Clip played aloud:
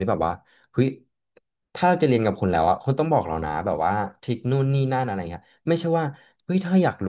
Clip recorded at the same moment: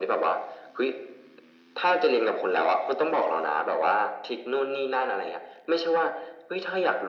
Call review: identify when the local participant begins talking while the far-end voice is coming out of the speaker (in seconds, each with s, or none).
none